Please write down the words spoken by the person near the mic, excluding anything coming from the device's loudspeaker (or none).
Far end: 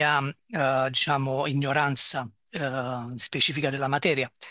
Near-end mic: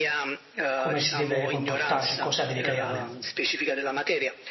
come si deve comportarsi, cosa deve creare?